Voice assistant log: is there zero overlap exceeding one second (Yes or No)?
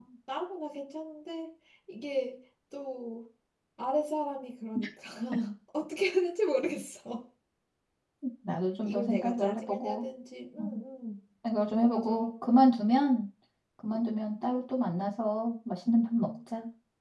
No